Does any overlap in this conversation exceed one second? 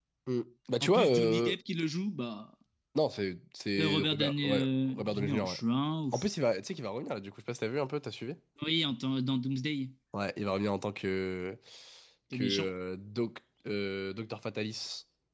Yes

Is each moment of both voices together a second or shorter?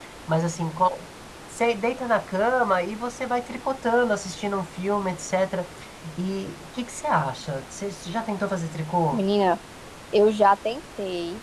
Yes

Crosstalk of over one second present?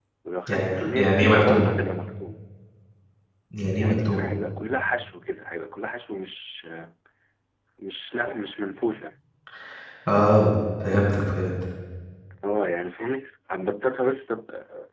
Yes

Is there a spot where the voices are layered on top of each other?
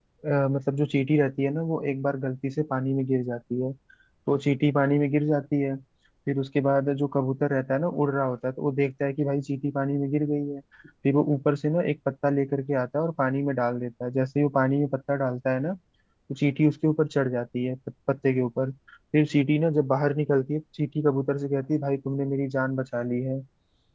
No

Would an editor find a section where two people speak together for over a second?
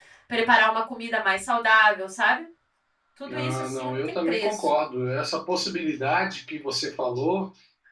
Yes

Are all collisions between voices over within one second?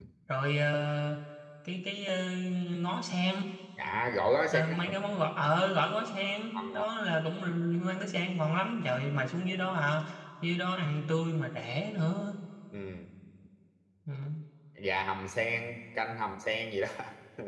Yes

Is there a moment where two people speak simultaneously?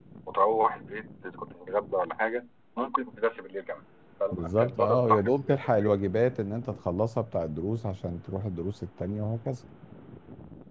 Yes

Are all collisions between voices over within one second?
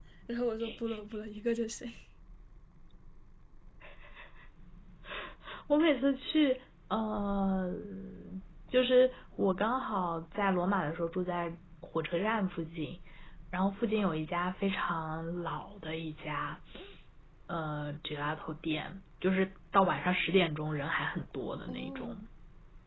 Yes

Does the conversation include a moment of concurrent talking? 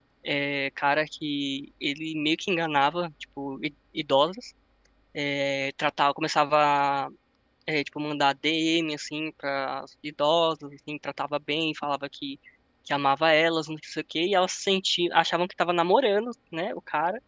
No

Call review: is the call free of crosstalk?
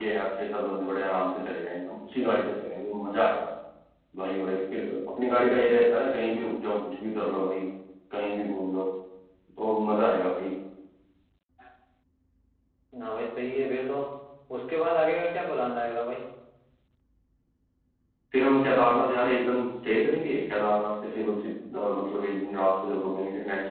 Yes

